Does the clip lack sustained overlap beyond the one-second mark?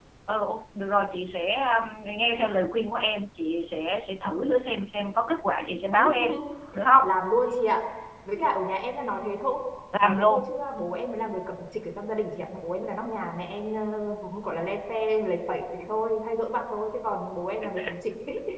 Yes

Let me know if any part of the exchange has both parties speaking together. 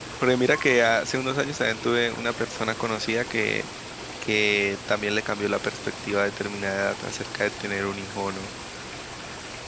No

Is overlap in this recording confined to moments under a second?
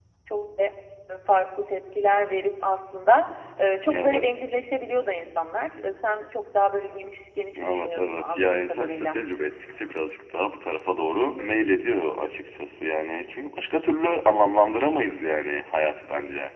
No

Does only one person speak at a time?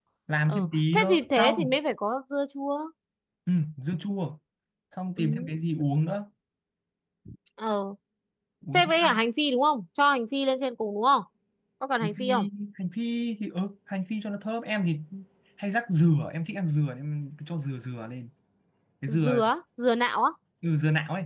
No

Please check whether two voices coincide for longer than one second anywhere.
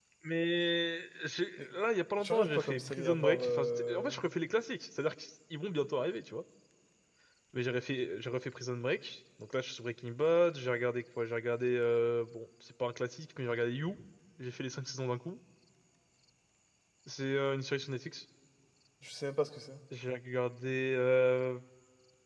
Yes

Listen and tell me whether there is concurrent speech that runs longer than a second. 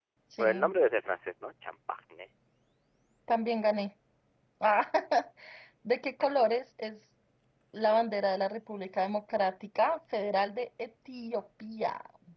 No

